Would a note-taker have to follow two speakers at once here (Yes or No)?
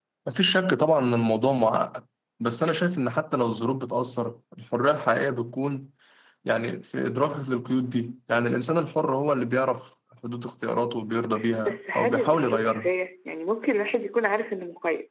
Yes